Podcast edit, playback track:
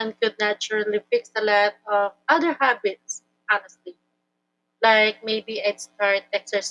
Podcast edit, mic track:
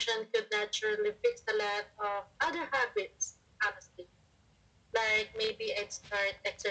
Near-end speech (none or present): none